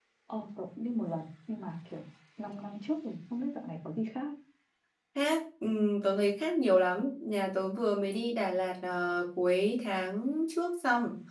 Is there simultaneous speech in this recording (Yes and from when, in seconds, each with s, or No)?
No